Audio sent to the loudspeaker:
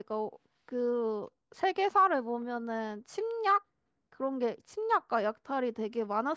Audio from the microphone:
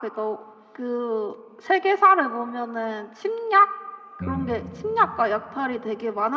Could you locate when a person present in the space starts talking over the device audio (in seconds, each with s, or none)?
4.2 s